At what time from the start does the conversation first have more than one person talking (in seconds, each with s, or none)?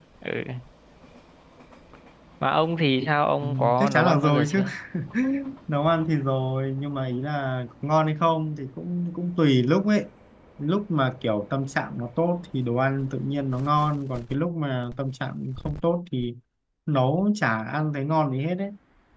3.4 s